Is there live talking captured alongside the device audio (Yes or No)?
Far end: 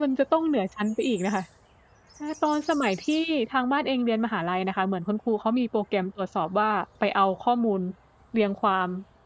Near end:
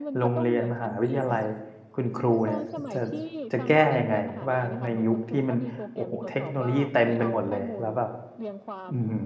Yes